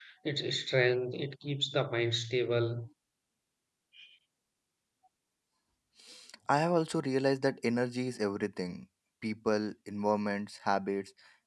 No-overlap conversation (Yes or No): Yes